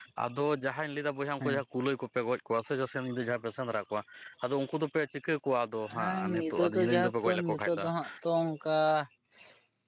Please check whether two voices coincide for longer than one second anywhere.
Yes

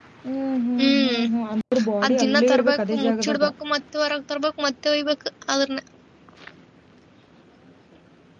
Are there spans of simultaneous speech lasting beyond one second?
Yes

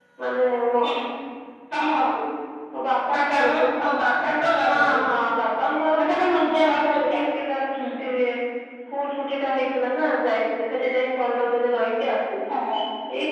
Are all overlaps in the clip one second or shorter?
No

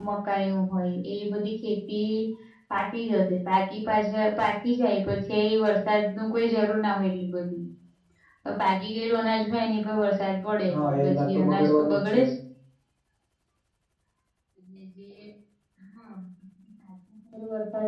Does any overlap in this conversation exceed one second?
Yes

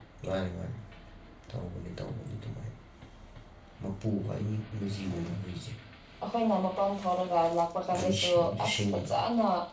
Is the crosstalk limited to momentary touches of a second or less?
No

